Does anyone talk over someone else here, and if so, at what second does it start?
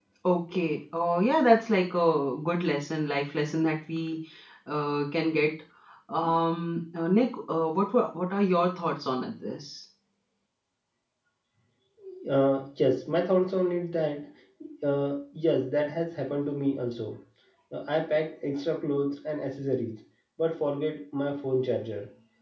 none

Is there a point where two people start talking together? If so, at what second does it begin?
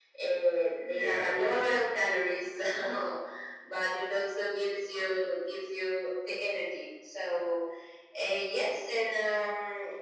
0.8 s

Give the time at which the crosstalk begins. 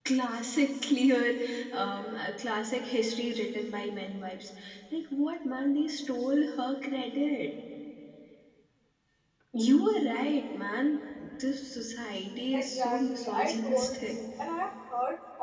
12.5 s

